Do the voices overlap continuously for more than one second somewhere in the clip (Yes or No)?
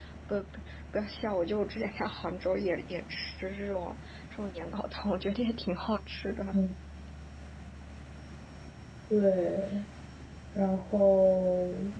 No